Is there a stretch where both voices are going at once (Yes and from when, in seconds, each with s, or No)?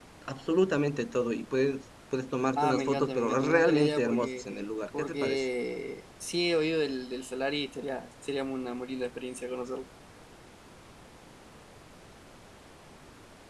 Yes, from 2.6 s